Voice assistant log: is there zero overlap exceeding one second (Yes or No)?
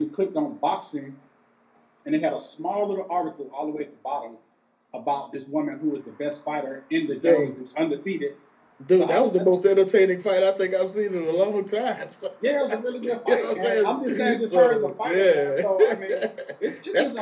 No